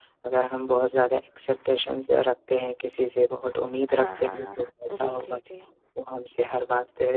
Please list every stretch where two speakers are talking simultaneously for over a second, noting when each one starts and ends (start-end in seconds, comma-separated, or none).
3.9-5.4